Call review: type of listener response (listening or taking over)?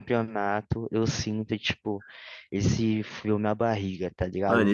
taking over